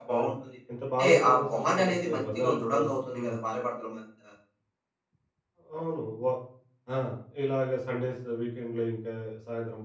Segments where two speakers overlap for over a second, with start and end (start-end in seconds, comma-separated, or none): 1.0-2.7